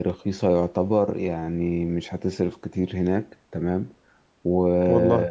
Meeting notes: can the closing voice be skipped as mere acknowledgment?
Yes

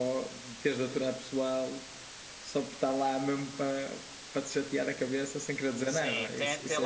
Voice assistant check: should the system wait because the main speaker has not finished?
No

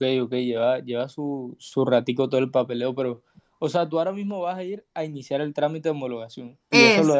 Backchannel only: Yes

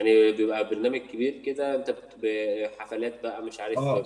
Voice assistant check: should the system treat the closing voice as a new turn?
Yes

